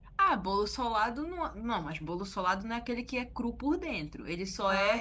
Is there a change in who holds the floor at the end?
No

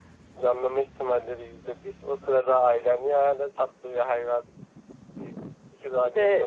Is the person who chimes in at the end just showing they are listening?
No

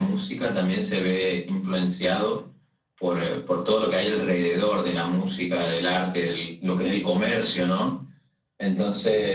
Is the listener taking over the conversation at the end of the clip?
No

